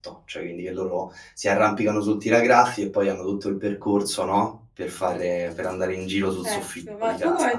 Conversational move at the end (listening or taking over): taking over